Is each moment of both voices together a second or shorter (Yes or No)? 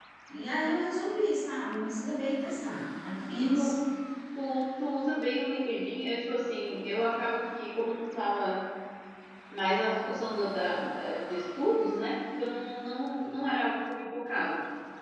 Yes